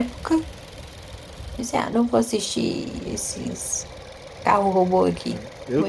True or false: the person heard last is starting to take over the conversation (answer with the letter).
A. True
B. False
A